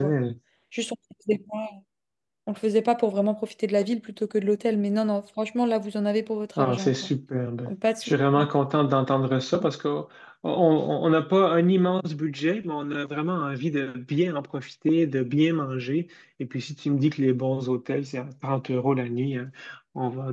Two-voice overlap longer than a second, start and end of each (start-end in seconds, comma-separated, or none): none